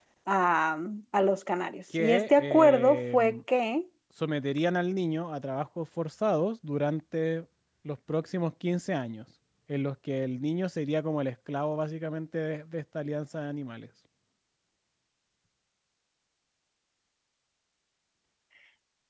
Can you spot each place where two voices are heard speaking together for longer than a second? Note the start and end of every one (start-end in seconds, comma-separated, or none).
2.0-3.4